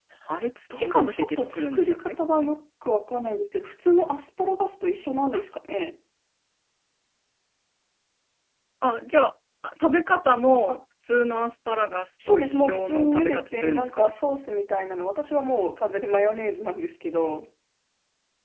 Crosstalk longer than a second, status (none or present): present